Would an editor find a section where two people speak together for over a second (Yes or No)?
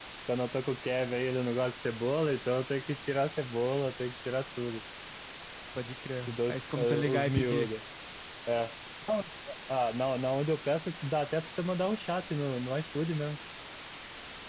Yes